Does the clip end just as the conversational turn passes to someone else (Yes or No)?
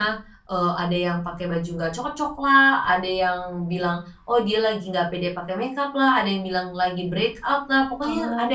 No